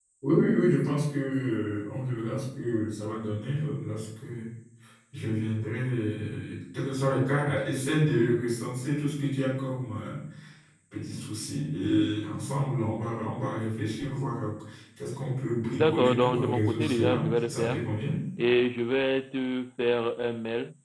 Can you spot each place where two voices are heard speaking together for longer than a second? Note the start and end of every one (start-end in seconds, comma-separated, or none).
15.7-17.8